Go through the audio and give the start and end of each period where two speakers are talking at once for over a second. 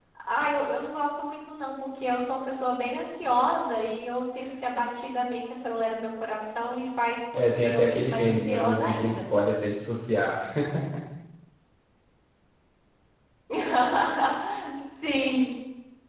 7.3-9.2

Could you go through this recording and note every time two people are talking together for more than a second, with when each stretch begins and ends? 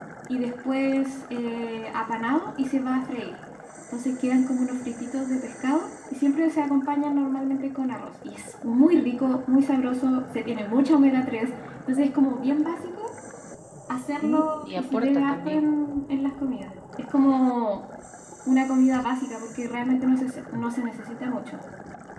14.2-15.7

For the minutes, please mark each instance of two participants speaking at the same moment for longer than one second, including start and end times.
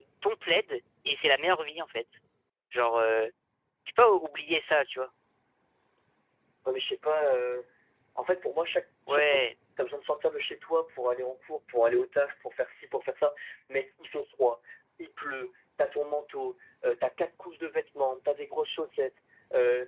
none

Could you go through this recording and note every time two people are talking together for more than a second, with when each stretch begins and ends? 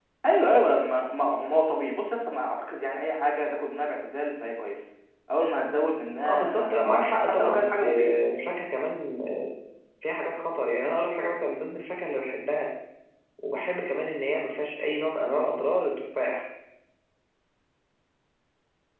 6.3-8.2

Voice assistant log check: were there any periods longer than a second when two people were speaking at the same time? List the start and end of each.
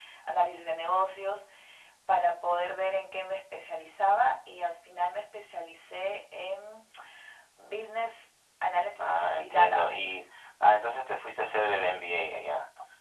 9.0-10.2

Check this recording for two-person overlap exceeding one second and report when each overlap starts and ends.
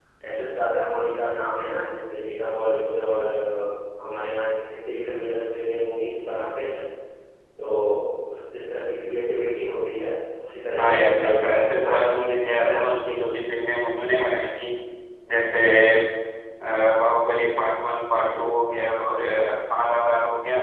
10.8-12.0

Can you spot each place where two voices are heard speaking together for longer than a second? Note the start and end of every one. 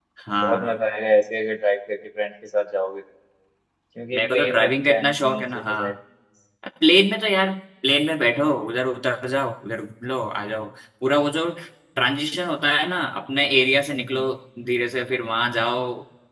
4.1-5.9

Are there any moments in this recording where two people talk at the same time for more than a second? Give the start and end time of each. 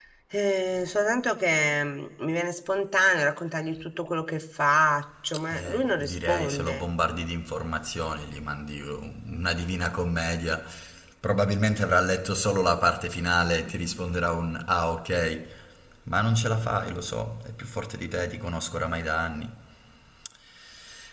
5.5-6.8

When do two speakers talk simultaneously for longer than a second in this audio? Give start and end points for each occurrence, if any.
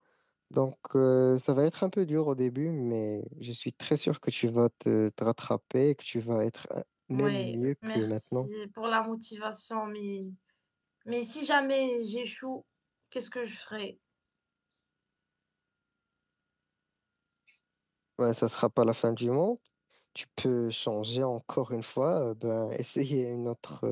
7.1-8.5

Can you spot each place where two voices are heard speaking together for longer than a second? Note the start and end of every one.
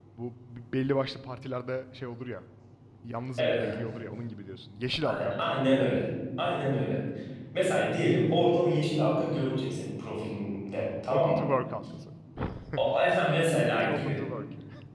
12.8-14.2

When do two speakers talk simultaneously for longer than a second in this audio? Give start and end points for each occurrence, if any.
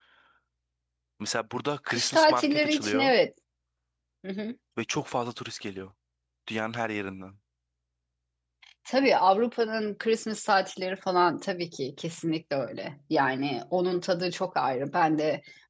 1.9-3.1

